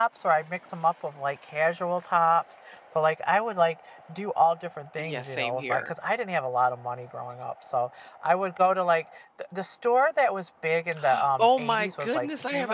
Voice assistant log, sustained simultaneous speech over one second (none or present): present